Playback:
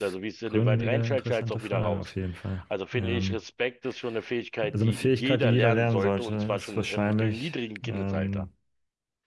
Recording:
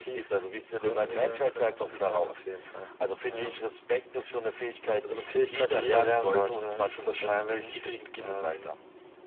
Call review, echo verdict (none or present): present